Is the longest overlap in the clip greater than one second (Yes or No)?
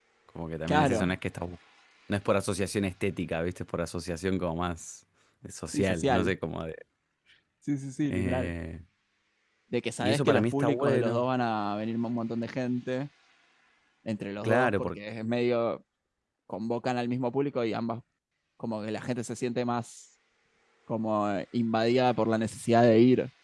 Yes